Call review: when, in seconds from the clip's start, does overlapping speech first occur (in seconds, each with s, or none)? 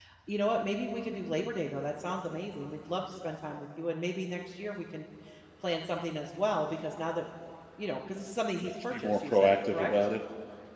8.6 s